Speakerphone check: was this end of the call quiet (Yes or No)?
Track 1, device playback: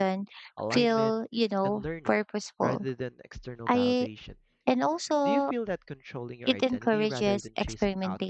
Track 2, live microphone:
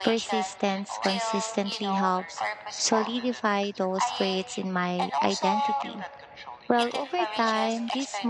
No